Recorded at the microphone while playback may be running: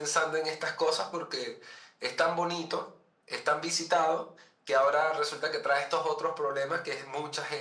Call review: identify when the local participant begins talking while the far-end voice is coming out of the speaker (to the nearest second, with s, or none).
none